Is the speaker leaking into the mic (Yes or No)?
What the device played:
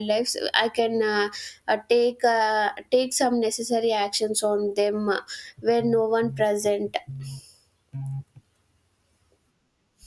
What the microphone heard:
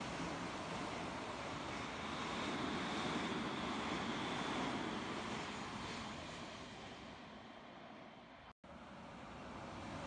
No